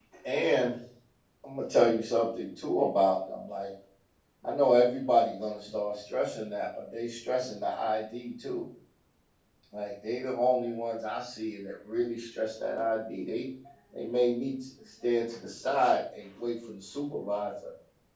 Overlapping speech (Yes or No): No